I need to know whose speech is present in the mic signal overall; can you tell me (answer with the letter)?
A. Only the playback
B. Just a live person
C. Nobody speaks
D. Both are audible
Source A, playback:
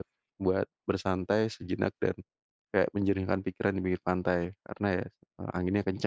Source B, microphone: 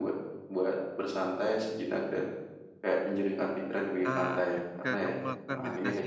D